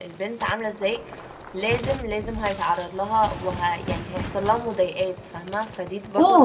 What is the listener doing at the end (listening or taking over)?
taking over